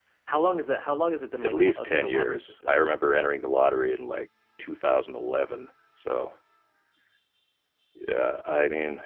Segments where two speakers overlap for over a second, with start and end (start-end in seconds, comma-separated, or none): 1.4-2.9